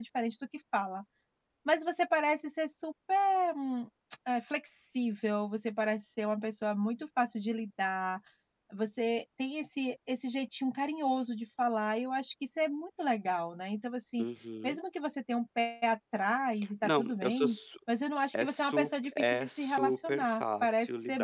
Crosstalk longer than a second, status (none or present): present